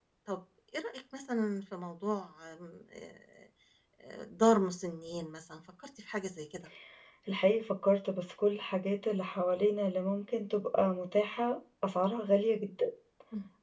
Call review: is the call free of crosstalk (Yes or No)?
Yes